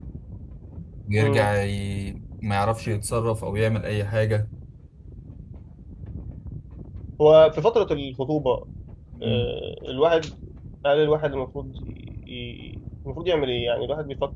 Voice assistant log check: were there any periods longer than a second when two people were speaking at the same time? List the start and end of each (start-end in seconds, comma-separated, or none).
none